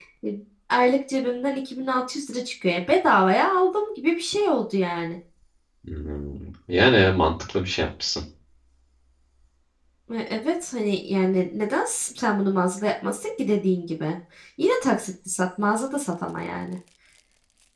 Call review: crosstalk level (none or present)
none